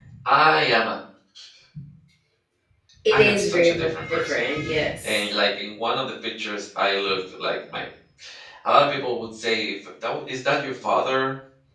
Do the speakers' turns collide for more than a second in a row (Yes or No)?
Yes